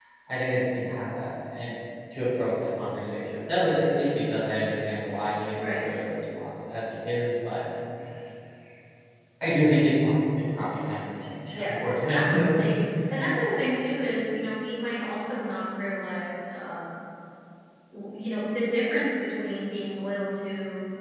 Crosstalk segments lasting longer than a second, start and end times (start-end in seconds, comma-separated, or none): 11.5-12.8